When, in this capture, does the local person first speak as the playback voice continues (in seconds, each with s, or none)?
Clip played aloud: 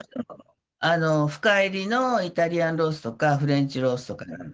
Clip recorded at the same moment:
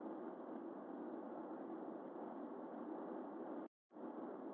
none